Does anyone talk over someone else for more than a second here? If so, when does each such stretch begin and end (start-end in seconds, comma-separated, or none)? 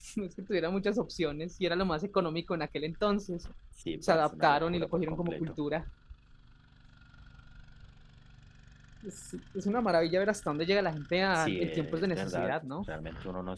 4.0-5.6, 11.3-12.7